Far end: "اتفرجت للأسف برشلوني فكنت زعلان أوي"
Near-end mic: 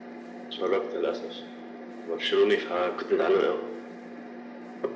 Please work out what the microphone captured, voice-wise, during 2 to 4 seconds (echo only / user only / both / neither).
echo only